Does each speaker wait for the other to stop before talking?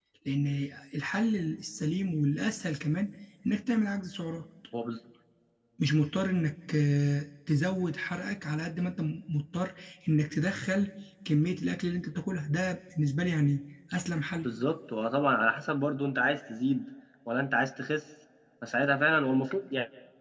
Yes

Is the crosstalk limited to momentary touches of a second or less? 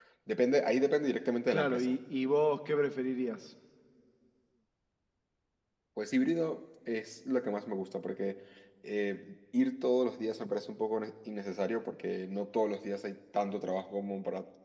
Yes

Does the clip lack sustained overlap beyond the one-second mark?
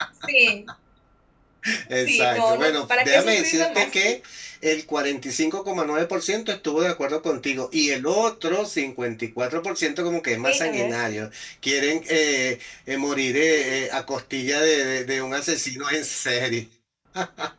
No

